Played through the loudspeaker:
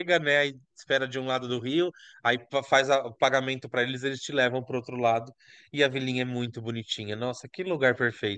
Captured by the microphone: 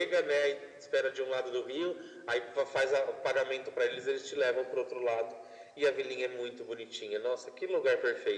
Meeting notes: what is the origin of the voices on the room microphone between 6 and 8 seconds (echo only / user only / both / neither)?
echo only